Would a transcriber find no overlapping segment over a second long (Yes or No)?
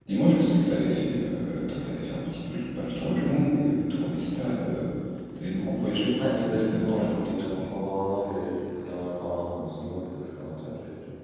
No